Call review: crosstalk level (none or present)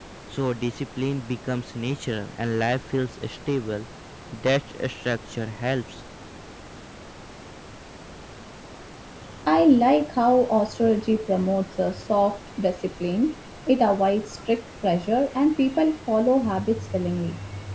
none